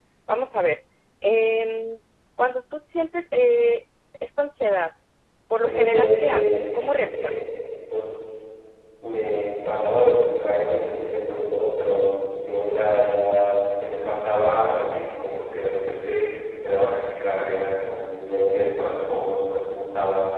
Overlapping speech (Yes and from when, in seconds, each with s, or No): Yes, from 5.6 s